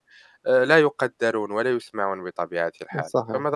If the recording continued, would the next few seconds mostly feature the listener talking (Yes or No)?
Yes